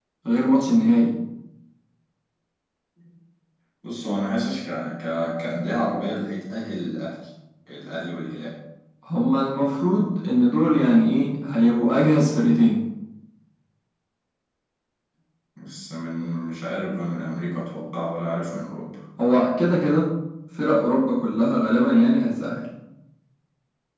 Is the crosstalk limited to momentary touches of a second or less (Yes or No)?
Yes